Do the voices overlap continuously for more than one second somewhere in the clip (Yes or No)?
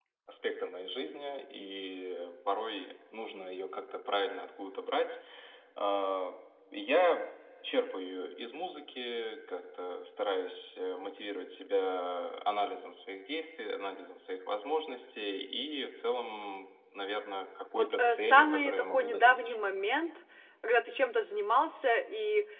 Yes